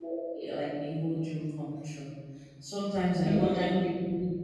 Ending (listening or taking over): listening